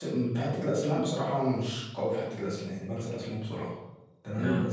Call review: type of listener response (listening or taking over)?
listening